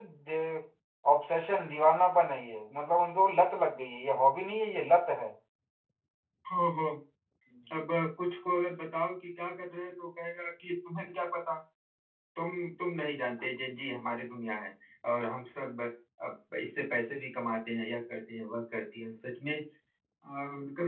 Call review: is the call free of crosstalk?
Yes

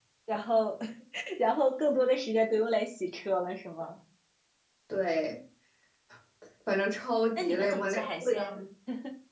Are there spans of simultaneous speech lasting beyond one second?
Yes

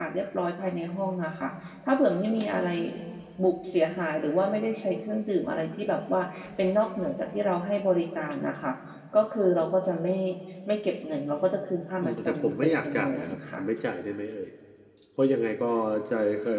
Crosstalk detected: Yes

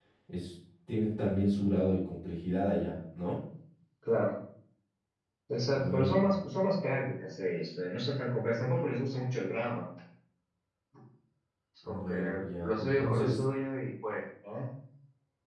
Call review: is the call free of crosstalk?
No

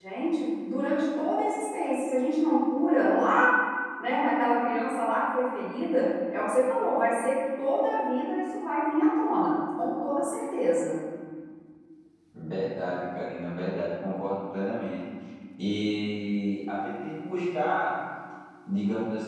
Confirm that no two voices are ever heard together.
Yes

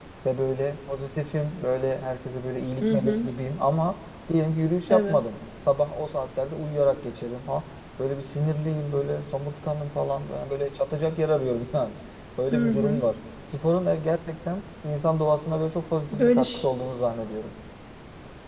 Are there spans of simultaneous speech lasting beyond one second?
No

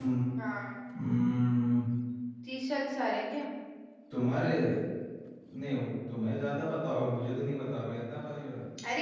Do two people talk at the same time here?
No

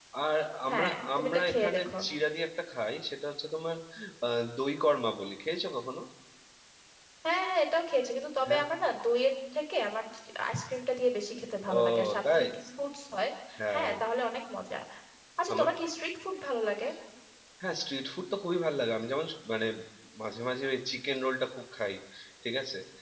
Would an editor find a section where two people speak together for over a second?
Yes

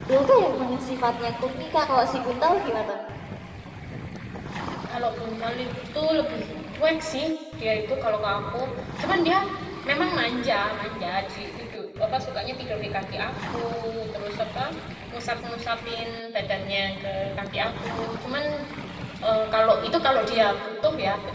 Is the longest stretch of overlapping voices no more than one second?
Yes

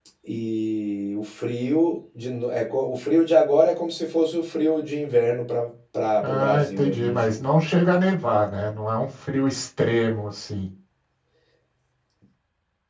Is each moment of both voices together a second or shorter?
No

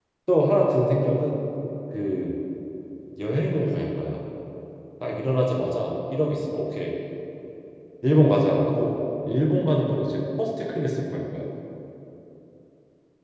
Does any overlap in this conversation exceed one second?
No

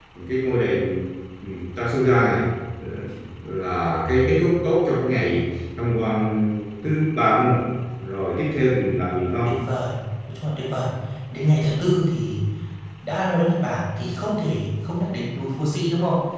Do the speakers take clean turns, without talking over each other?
Yes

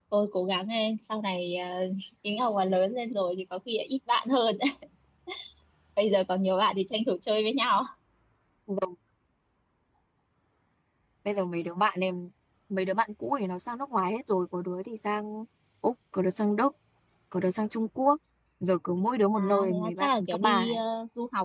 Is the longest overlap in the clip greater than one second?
Yes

